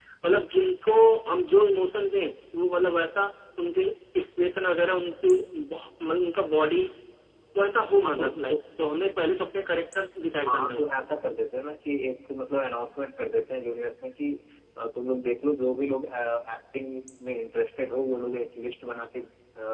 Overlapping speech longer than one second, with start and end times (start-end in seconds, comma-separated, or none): none